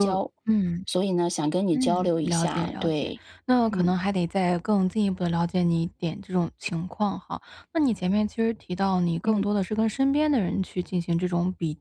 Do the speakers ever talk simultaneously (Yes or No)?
Yes